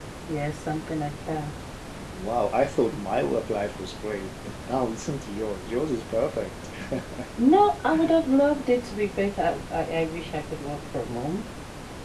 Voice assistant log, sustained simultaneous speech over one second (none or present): none